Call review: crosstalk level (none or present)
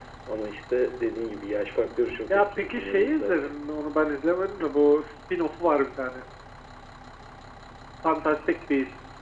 present